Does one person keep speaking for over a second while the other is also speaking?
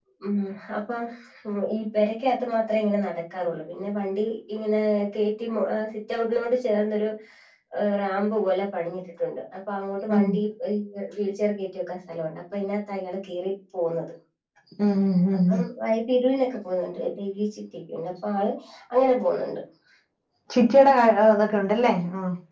No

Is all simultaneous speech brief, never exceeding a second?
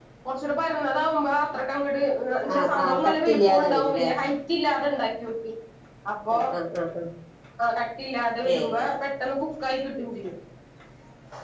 No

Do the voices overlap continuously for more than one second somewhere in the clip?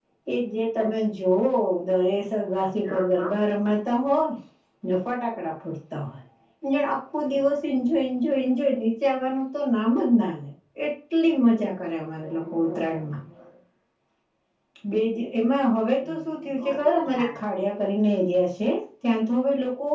Yes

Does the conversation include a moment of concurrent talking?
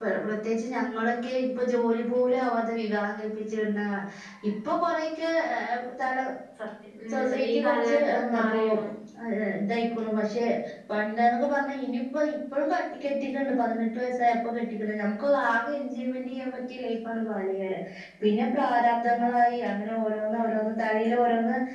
Yes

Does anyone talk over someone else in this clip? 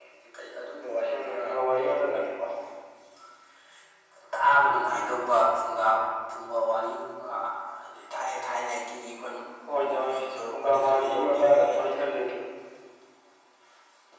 Yes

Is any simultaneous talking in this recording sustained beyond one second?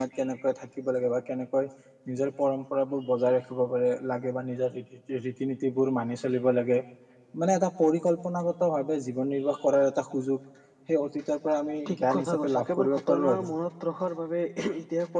Yes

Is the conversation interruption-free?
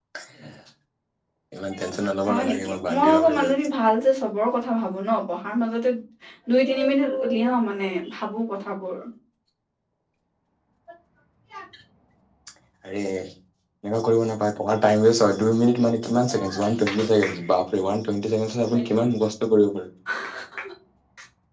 No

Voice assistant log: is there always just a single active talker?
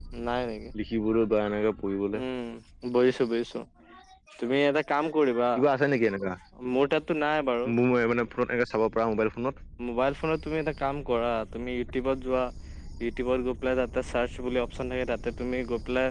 Yes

